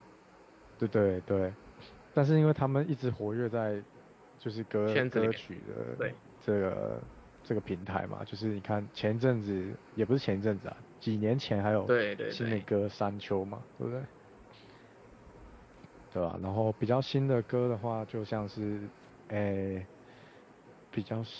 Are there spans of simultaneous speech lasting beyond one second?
No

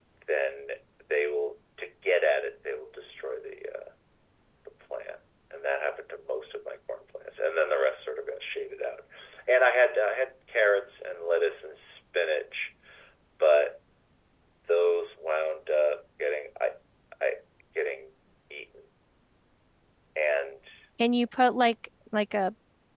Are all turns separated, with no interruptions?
Yes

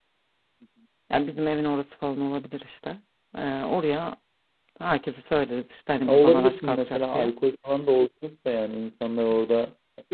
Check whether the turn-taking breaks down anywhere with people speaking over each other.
Yes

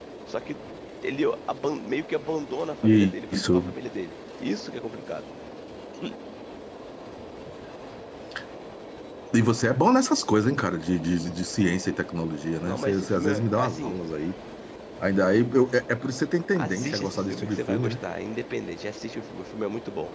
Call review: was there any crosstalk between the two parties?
Yes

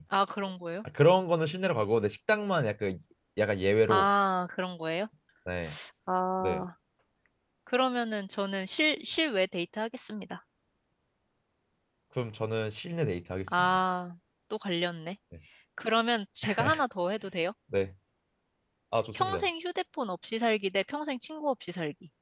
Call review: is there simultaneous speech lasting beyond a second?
No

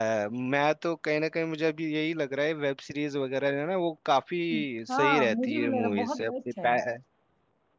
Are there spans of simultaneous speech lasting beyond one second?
Yes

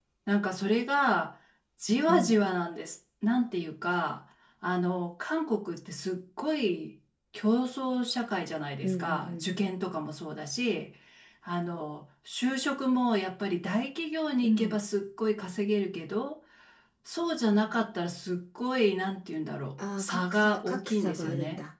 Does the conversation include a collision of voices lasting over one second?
Yes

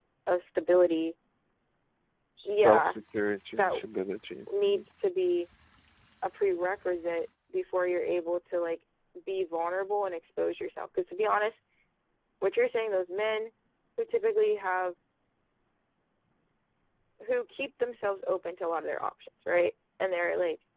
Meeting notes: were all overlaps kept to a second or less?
Yes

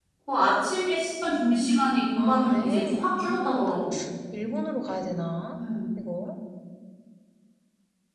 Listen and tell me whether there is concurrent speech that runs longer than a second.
Yes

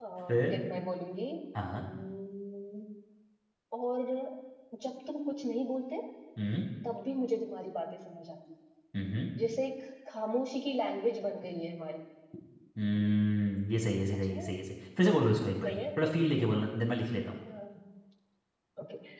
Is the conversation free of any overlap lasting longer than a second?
Yes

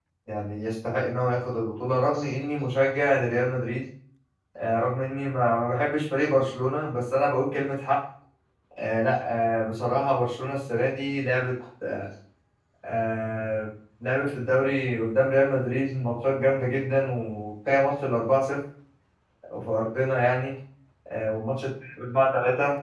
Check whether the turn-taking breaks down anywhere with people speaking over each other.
No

